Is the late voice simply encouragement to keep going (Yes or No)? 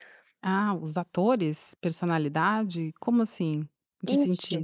No